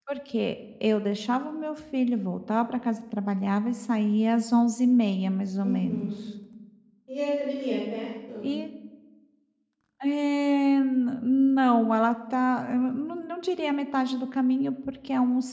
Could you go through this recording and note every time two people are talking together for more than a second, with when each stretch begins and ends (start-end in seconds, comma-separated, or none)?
none